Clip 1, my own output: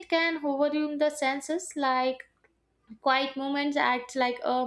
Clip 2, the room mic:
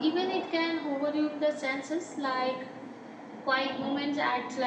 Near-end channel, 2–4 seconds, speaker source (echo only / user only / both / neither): echo only